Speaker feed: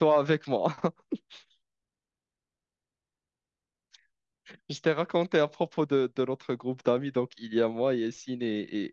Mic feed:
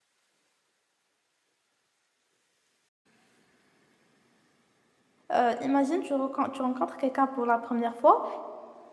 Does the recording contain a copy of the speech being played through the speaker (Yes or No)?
No